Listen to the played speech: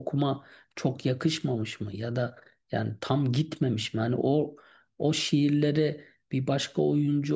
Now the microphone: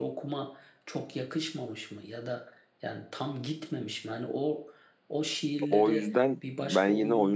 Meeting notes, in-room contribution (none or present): present